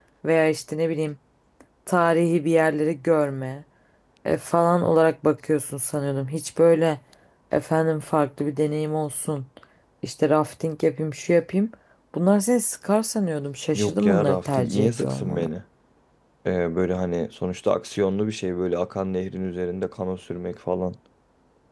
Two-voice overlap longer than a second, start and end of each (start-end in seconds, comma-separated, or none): 13.7-15.5